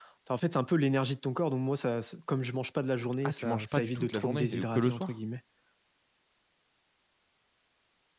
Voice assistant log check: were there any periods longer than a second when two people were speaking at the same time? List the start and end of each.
3.2-5.1

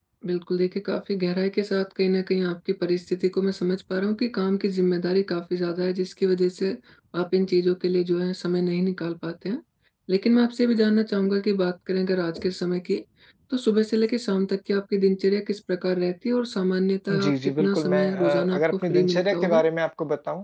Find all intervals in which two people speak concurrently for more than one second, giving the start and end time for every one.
17.1-19.6

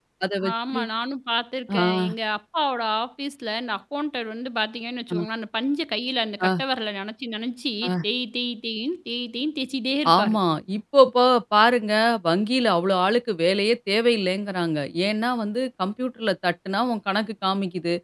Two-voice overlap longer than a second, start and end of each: none

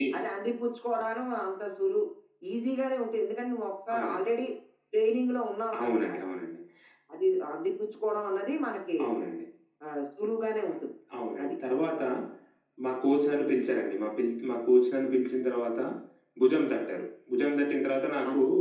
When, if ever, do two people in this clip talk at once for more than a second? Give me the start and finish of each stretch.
none

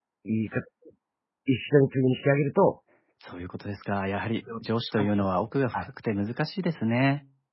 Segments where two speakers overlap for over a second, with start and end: none

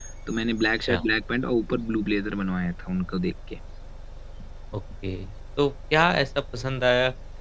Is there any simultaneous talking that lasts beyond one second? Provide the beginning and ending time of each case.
none

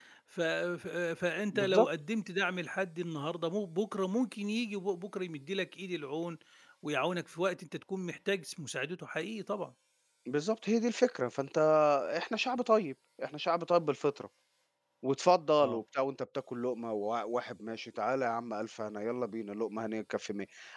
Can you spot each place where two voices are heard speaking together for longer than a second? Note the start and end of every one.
none

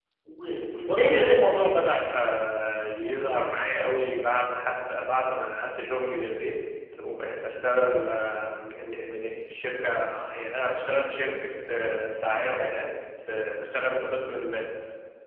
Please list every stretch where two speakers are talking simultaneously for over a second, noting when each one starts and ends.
0.9-2.4

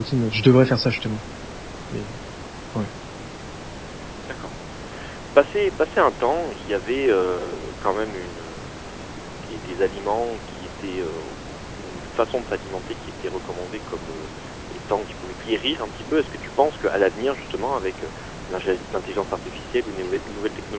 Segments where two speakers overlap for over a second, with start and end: none

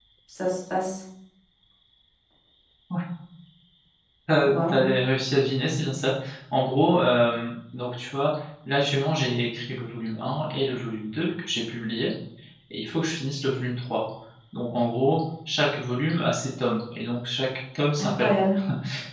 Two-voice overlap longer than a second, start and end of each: none

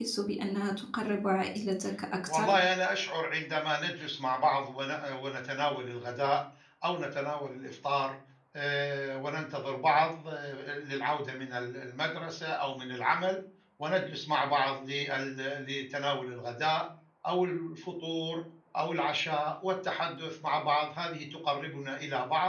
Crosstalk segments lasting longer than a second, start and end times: none

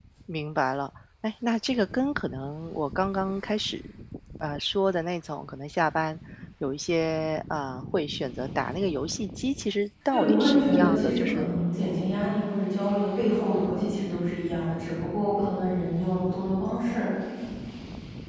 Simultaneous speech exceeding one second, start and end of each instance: 10.1-11.5

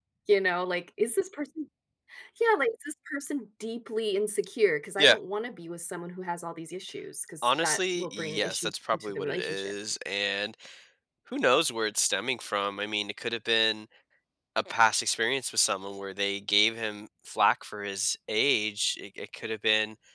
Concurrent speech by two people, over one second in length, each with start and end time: 7.4-9.7

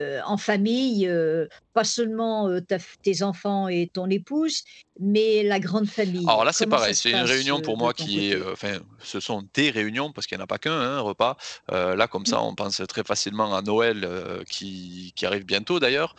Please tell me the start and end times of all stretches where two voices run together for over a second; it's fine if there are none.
6.3-8.4

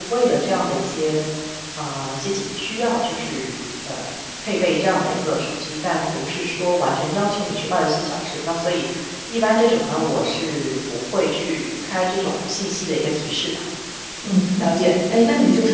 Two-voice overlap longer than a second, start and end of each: none

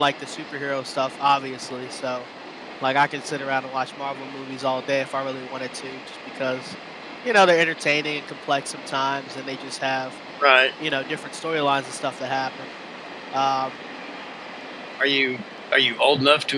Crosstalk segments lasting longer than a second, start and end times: none

